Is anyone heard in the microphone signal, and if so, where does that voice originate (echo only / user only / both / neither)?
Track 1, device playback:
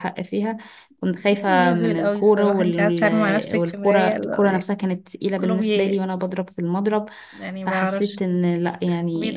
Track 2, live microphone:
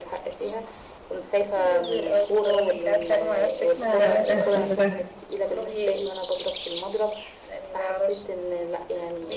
both